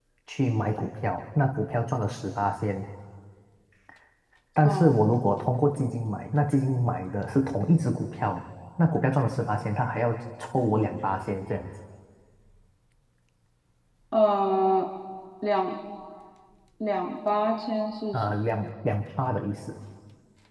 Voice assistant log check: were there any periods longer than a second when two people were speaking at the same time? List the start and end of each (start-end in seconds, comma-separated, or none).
none